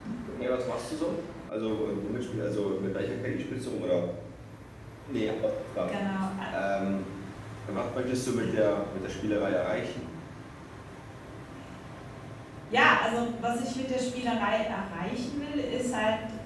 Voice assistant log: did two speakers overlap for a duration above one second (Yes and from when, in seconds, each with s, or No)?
No